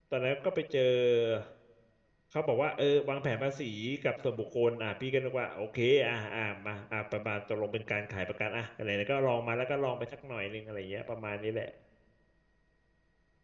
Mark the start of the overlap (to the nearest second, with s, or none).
none